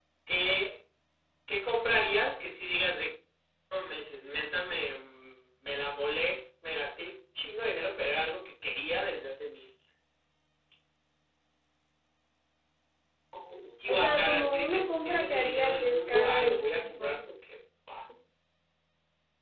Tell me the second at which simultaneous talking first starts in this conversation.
14 s

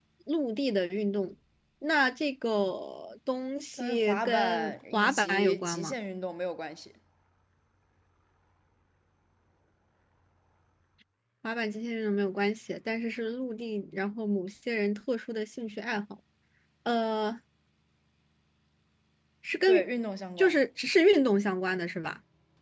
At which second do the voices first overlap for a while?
4 s

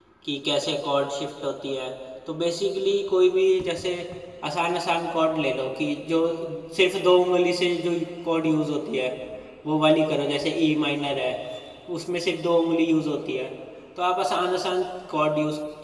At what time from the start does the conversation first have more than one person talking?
none

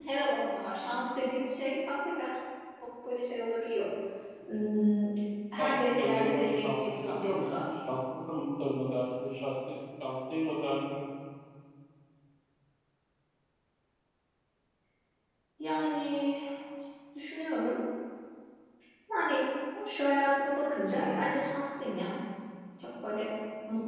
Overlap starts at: 6 s

